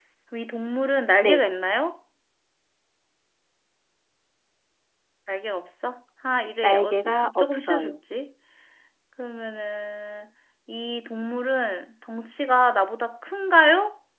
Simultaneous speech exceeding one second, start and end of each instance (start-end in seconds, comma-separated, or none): 6.6-8.0